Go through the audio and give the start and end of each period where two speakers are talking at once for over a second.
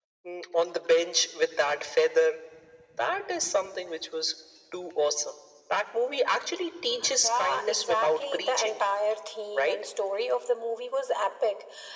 7.2-8.7

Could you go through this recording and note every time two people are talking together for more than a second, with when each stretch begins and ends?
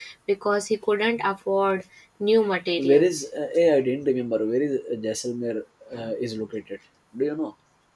none

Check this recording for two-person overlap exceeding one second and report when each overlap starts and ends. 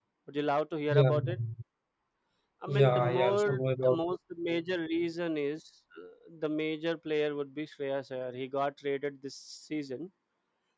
2.7-4.0

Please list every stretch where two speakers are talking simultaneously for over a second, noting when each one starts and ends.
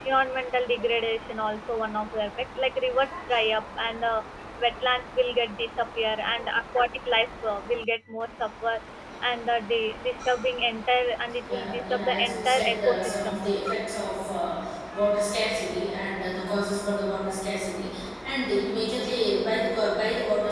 11.5-13.7

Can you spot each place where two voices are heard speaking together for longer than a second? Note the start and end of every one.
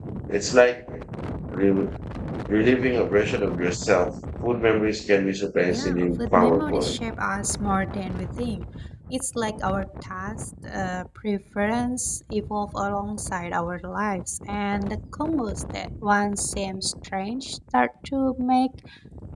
5.7-7.0

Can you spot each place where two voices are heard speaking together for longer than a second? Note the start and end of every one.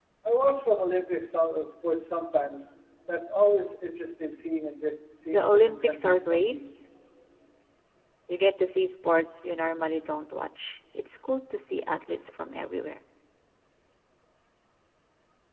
5.3-6.5

